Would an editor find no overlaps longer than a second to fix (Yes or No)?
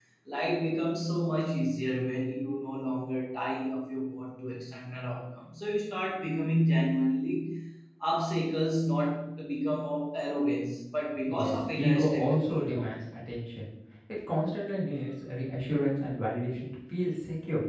No